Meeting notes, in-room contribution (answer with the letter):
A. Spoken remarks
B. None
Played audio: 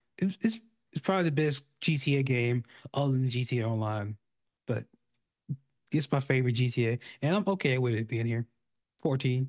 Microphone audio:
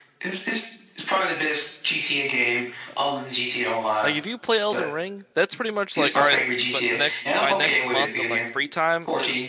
A